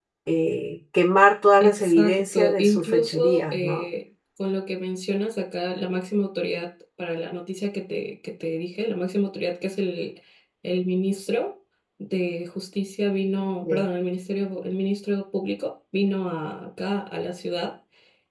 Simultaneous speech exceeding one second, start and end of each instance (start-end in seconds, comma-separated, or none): 1.6-3.8